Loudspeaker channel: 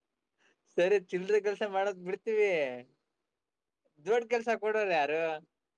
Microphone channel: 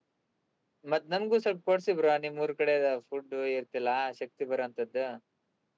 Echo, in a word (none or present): none